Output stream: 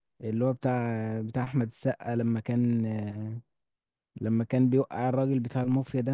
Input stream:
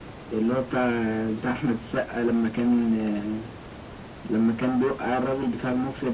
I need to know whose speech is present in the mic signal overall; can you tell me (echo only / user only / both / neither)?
echo only